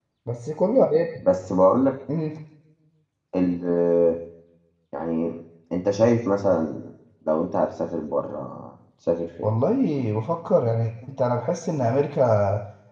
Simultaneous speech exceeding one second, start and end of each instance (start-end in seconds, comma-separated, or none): none